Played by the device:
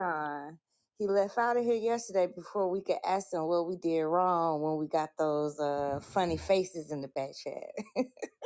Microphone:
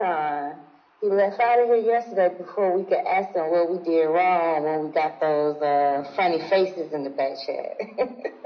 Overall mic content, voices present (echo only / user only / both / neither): echo only